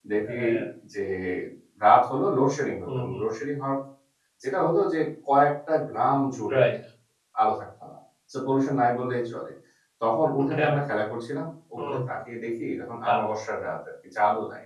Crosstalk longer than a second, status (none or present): none